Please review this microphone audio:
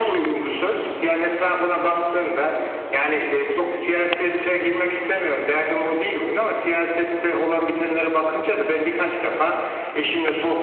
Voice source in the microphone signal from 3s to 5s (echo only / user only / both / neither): echo only